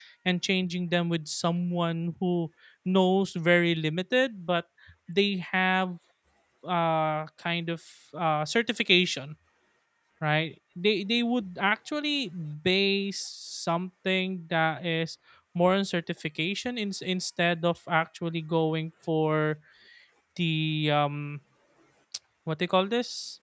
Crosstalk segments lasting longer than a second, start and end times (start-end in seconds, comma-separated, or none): none